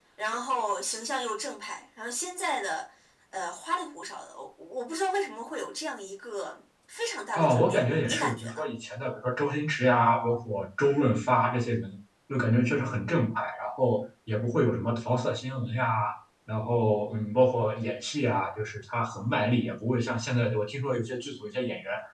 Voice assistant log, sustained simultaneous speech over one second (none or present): present